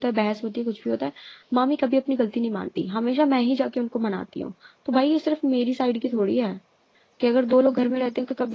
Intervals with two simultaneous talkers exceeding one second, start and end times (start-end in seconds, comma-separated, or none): none